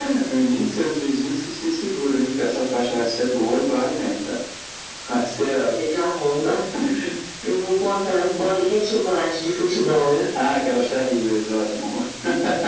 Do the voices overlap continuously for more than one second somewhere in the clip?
No

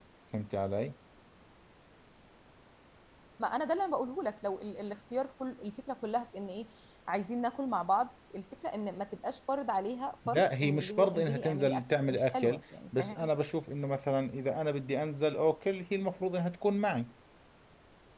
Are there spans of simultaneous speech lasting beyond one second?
Yes, from 10.2 s

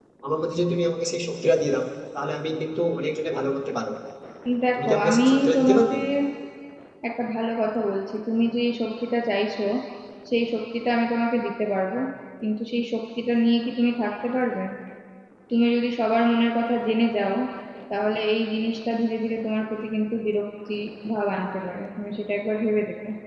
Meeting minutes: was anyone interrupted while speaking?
Yes, from 4.8 s

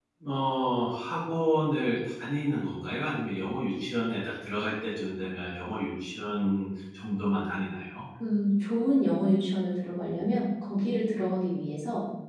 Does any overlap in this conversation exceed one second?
No

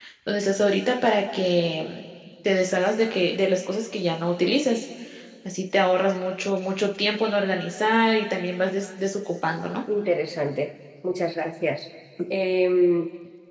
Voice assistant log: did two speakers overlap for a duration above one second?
No

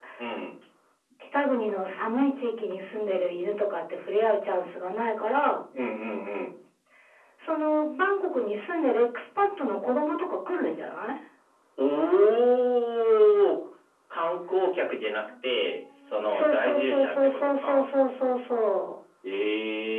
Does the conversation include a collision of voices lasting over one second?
Yes, from 16.3 s

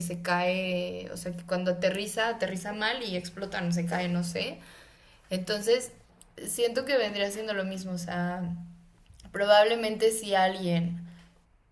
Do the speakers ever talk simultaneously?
No

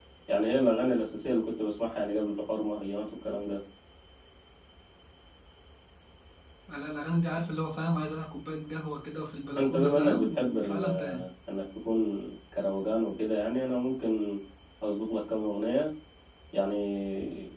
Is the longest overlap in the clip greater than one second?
Yes, from 9.6 s

